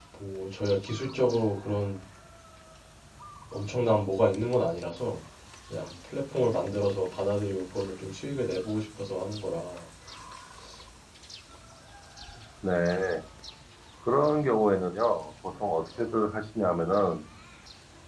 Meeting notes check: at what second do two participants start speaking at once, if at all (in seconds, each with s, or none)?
none